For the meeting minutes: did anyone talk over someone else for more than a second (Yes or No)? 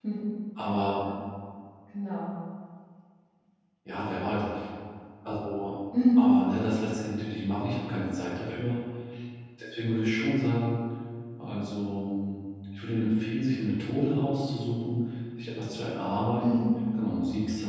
No